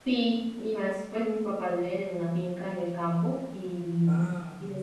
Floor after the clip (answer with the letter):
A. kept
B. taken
A